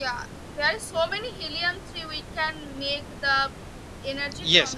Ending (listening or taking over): taking over